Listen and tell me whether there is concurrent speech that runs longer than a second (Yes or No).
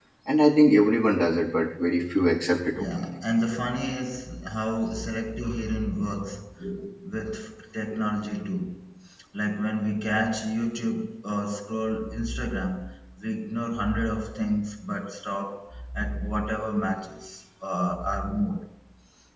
No